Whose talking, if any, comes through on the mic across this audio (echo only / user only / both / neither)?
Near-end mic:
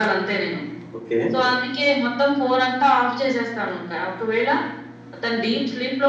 both